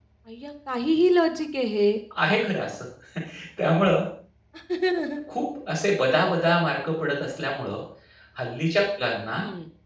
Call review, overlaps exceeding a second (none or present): none